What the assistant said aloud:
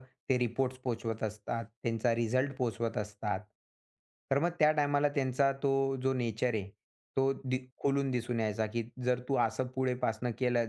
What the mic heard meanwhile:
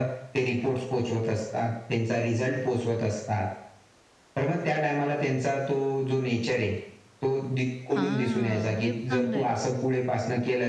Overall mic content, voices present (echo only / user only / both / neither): both